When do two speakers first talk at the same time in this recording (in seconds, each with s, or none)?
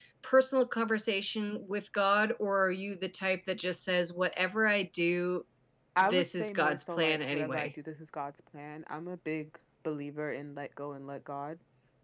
6.0 s